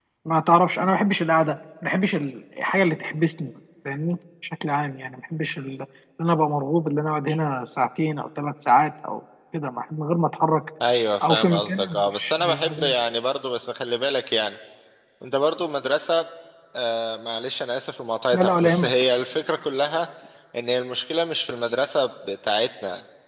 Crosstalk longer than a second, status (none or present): present